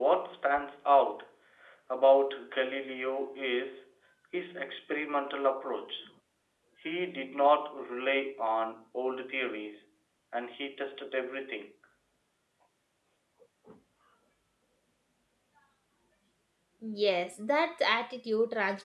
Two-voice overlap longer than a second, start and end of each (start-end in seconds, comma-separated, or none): none